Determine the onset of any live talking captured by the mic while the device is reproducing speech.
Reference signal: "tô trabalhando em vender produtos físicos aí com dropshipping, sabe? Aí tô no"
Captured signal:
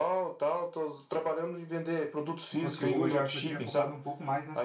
2.4 s

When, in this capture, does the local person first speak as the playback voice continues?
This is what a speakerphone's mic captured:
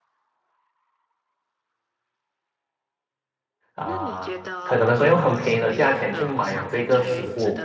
3.8 s

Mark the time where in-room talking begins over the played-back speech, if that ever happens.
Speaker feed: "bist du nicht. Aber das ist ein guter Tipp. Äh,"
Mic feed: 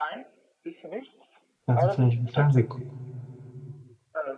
1.7 s

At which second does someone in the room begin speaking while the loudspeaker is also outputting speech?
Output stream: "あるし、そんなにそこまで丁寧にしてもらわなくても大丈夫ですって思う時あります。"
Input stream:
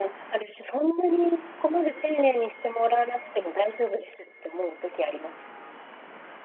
none

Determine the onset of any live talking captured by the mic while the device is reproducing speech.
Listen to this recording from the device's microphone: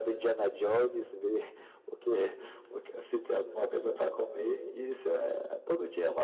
none

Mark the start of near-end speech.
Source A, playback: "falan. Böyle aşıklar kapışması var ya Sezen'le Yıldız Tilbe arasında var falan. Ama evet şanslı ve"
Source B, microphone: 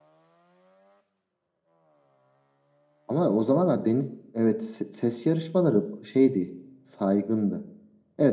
3.1 s

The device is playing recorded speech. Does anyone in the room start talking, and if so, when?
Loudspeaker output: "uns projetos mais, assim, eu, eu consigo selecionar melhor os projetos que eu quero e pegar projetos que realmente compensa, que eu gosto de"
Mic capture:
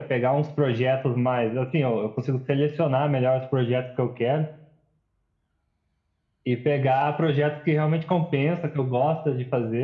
none

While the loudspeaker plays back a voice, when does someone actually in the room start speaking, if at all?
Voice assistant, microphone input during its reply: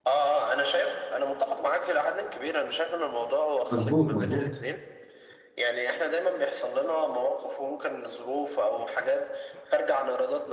3.7 s

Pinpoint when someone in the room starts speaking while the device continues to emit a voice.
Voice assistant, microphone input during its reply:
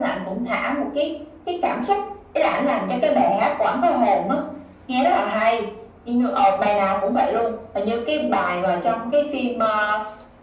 none

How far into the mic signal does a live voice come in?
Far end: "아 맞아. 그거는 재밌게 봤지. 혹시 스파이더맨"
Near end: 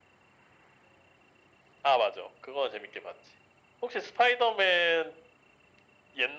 none

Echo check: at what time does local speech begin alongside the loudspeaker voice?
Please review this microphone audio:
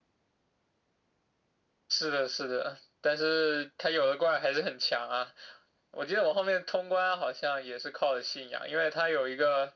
none

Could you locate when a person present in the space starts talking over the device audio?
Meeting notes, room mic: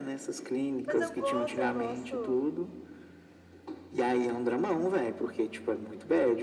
0.8 s

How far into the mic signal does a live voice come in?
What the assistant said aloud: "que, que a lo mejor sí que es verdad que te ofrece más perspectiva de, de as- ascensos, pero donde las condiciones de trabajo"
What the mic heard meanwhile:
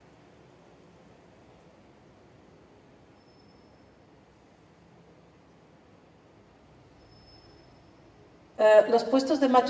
8.6 s

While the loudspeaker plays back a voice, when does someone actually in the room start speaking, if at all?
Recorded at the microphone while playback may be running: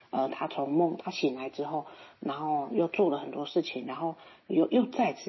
none

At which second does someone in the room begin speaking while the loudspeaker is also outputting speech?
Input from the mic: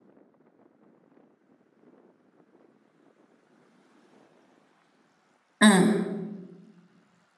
5.6 s

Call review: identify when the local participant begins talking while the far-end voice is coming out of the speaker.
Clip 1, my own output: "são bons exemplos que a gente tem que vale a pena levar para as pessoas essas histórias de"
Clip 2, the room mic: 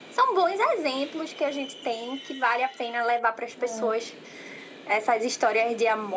3.6 s

